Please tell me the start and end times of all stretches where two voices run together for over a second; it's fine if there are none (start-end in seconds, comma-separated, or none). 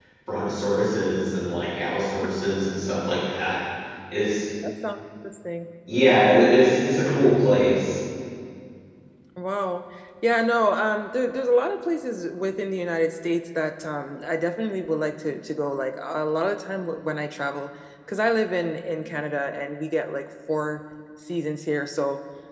none